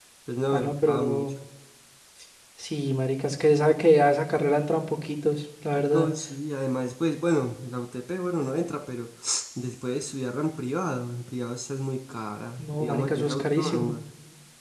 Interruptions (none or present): present